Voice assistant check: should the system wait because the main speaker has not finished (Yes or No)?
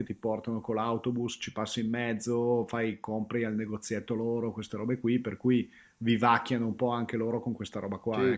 No